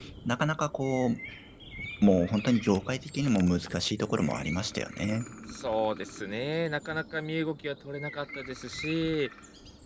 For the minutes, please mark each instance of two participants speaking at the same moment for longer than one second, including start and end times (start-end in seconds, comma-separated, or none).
none